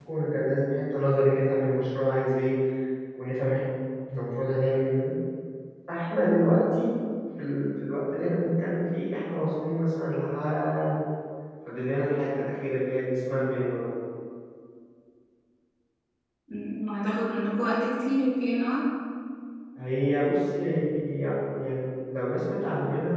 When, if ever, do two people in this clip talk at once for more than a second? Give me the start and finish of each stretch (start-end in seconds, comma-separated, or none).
none